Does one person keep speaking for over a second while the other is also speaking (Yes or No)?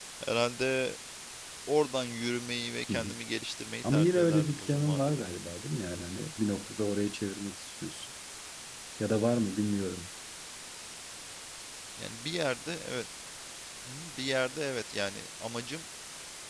Yes